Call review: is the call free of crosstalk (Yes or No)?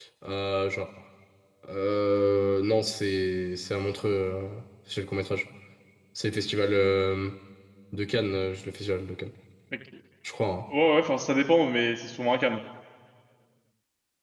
Yes